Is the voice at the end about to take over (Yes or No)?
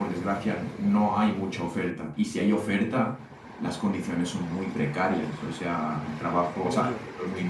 No